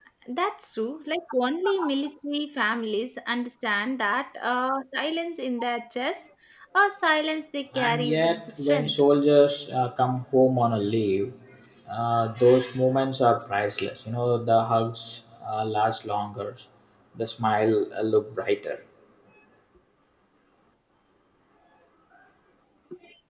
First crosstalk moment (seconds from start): 7.7 s

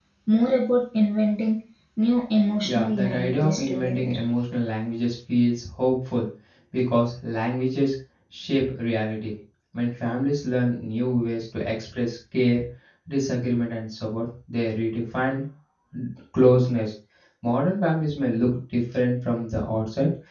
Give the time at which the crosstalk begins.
2.6 s

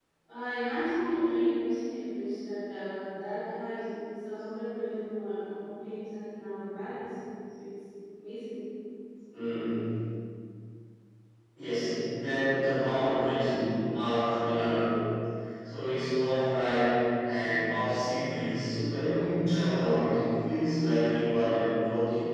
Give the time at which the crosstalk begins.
none

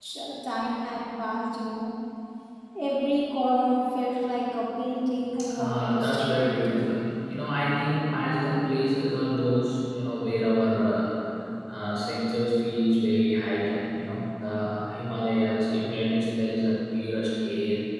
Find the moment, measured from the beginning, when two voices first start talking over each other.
5.3 s

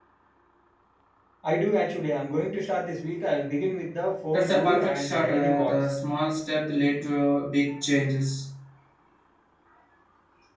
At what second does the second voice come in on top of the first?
4.3 s

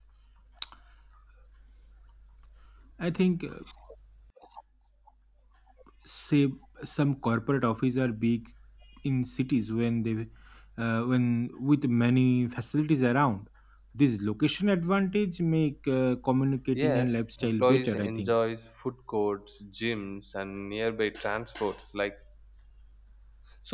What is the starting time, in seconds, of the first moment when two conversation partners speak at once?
16.7 s

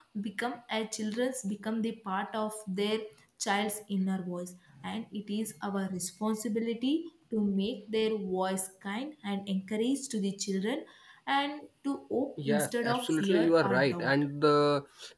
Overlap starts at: 12.4 s

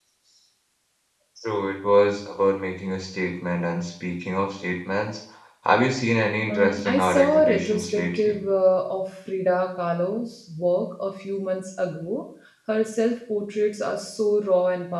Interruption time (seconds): 6.5 s

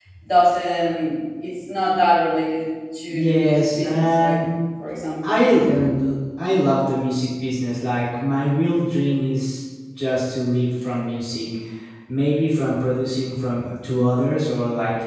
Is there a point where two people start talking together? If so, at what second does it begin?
3.1 s

